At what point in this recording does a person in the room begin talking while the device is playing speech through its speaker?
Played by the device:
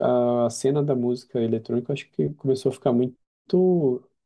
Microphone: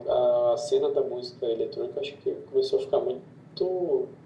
none

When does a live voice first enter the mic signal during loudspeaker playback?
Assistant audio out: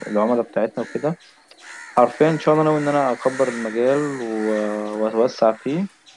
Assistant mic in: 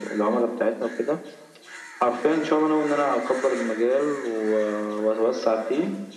none

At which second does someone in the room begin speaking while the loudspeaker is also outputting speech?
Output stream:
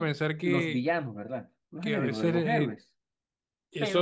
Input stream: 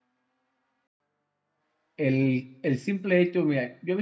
2 s

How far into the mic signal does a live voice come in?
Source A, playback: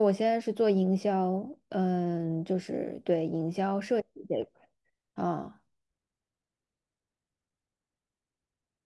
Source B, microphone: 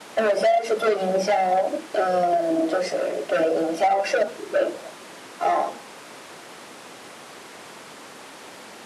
none

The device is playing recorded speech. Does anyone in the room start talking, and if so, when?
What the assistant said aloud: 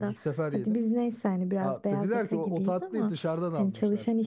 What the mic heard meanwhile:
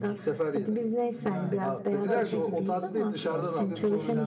1 s

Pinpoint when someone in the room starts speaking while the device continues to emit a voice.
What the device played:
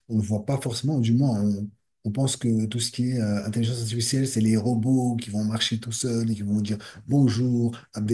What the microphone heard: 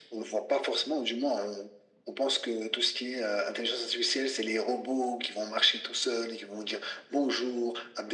none

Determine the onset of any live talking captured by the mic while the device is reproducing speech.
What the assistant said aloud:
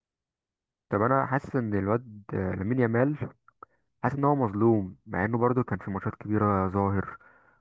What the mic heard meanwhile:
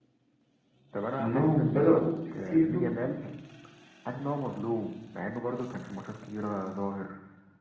1 s

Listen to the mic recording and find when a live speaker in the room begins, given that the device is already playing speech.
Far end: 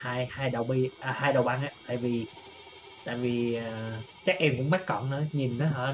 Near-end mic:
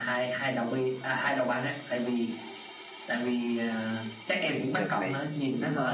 5 s

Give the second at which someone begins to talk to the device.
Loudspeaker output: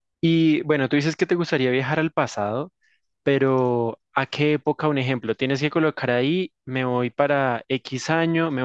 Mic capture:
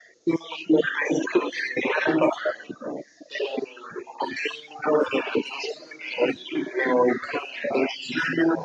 none

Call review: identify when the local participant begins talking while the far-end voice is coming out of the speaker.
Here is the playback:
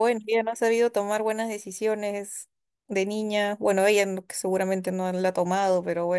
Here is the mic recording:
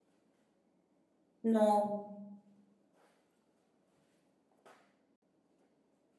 1 s

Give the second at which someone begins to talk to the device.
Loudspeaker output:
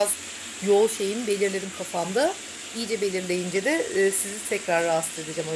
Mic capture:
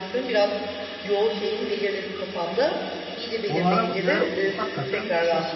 3 s

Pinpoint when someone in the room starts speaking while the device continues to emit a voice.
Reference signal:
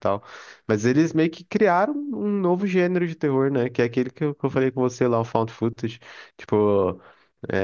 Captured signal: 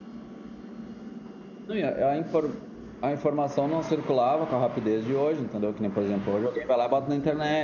2 s

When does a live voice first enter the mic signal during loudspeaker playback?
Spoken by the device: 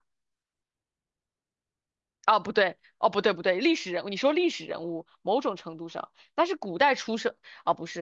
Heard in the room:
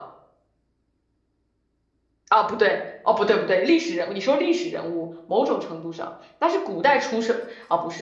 none

